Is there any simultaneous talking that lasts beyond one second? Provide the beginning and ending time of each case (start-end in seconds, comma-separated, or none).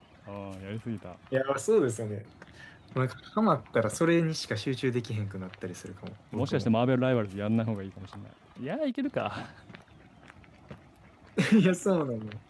none